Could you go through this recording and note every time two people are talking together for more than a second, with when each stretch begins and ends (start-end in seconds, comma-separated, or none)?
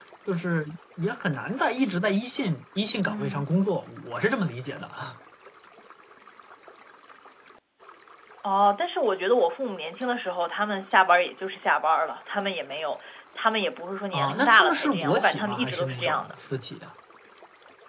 14.1-16.3